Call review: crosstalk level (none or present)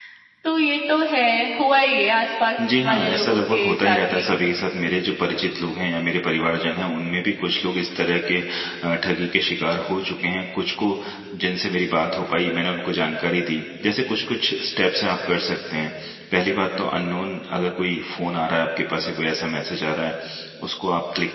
present